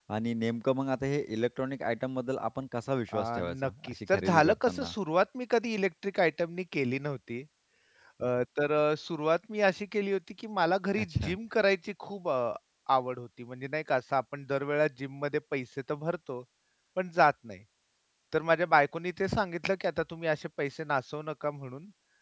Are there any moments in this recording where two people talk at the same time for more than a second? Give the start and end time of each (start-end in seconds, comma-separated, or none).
3.1-4.9